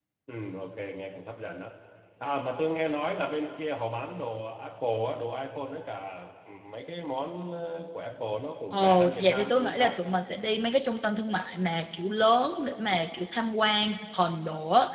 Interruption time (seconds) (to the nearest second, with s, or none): 9 s